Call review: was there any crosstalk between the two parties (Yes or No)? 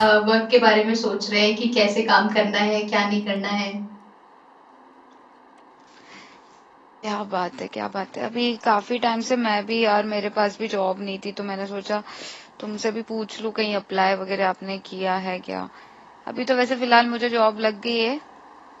No